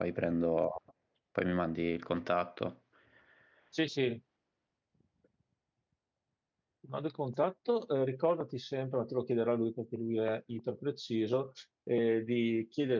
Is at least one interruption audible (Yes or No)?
No